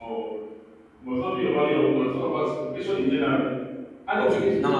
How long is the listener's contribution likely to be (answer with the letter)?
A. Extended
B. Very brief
A